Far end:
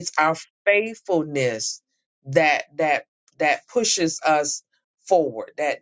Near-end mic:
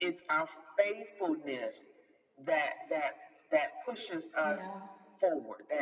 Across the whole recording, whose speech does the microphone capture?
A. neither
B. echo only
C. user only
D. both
D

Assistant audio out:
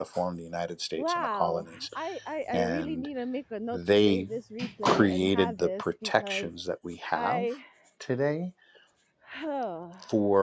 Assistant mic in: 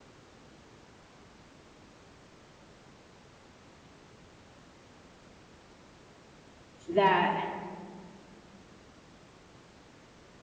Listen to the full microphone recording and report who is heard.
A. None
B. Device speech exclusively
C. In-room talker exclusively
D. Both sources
C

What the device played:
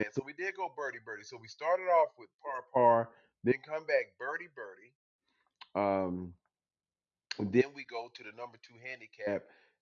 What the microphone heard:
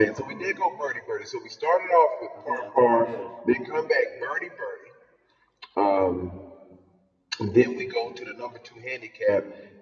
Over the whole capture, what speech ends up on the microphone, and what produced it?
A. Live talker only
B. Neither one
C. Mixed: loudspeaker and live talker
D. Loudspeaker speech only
C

